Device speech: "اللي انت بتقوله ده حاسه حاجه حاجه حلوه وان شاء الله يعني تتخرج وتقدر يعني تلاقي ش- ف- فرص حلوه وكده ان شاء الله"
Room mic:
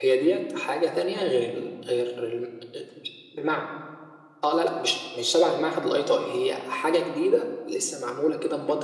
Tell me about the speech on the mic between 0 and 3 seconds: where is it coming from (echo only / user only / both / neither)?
user only